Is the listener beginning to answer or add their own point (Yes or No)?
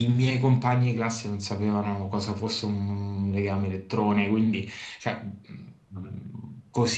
No